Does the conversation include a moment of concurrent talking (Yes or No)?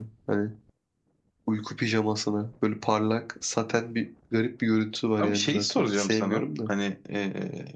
Yes